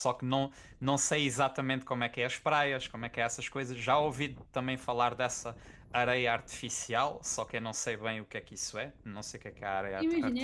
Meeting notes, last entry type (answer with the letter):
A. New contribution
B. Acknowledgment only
A